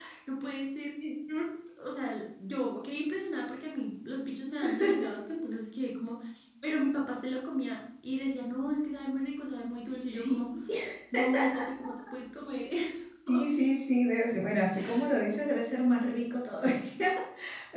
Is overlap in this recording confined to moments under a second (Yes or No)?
Yes